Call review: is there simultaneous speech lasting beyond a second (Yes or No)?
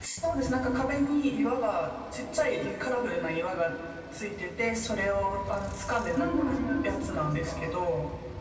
Yes